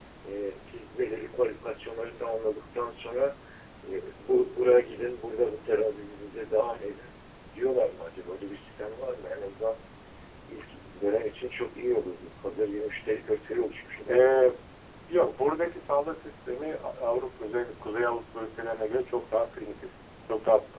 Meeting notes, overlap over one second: none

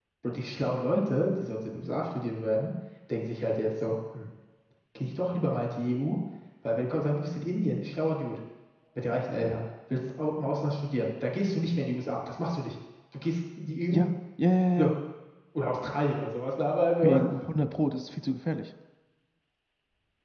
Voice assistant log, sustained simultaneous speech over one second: none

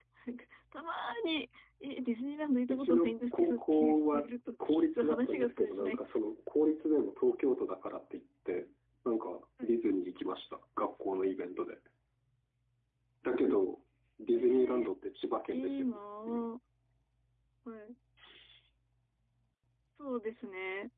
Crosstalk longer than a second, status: present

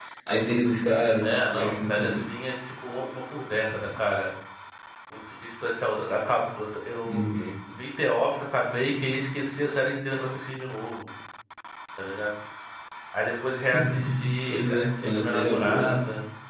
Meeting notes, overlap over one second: present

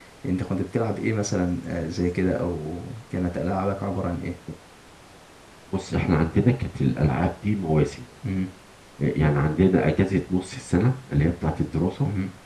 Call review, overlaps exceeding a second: none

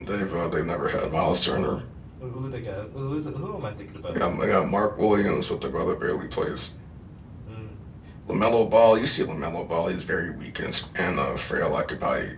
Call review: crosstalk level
none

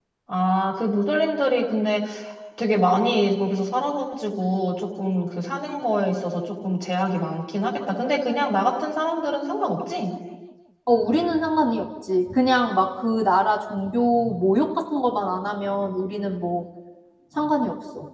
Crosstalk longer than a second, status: none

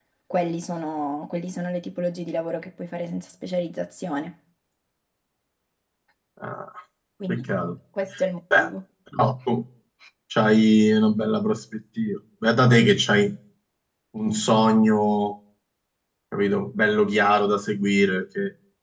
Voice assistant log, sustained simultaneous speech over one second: none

